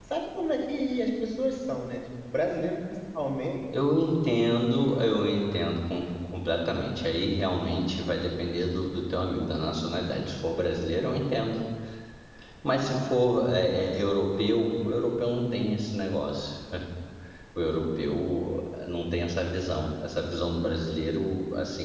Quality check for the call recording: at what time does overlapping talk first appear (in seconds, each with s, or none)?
none